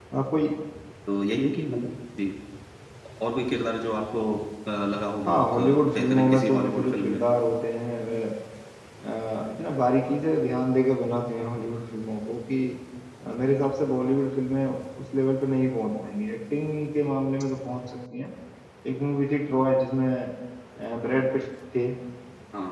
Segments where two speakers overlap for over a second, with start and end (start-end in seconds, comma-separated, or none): 5.2-7.2